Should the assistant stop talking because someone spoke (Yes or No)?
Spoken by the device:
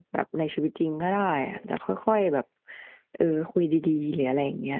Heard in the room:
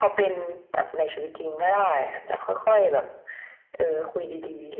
No